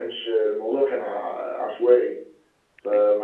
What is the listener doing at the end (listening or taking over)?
listening